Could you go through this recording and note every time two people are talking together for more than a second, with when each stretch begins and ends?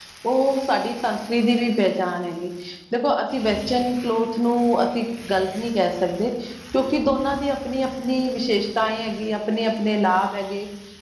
none

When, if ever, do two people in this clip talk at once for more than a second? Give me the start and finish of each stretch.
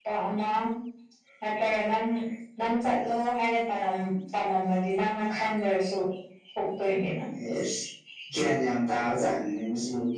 none

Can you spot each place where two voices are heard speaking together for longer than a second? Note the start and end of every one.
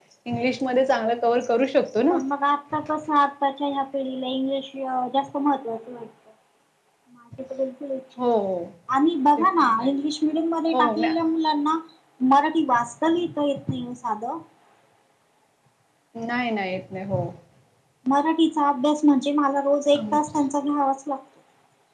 none

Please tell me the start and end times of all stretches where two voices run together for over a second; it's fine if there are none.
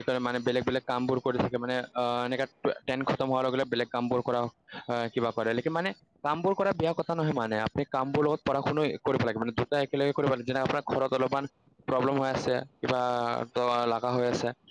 none

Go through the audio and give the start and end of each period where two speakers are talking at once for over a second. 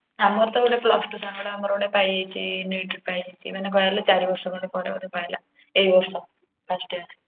none

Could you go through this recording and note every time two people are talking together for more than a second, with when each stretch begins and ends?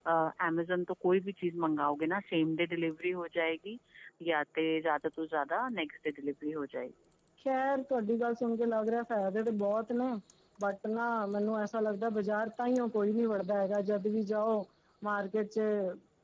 none

